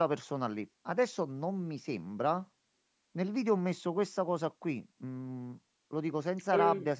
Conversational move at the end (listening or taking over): listening